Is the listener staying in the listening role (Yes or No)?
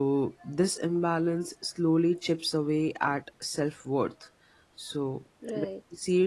Yes